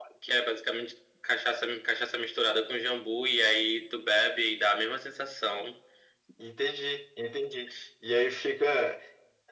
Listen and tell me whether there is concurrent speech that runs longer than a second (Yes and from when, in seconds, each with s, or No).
No